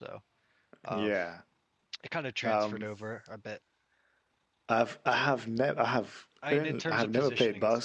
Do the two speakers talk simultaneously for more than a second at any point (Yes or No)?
Yes